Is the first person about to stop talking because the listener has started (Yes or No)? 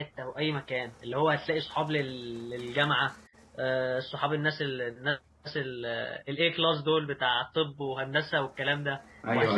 No